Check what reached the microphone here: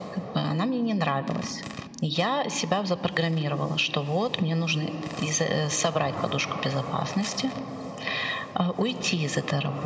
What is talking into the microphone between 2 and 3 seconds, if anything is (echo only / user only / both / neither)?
echo only